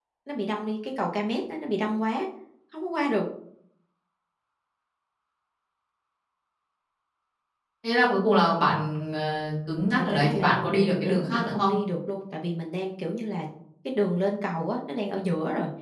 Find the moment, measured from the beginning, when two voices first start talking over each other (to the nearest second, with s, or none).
10 s